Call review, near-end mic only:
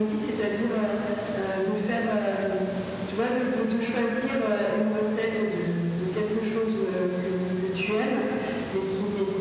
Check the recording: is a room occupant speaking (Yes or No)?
No